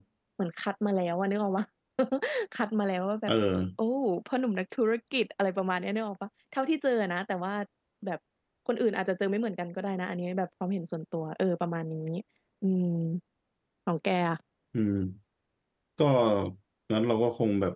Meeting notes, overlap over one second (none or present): none